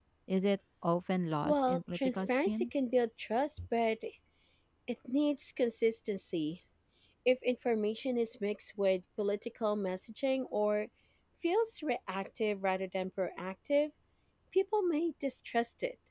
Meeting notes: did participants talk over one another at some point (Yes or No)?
Yes